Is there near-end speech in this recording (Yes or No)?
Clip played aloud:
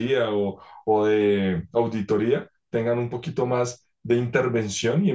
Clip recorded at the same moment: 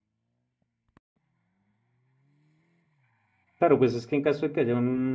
Yes